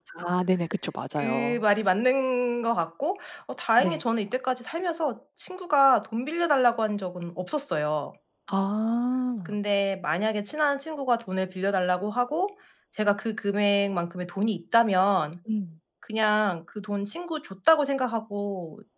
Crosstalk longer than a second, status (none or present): none